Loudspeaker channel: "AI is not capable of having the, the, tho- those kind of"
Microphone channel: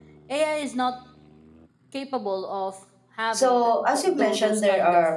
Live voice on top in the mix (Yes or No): Yes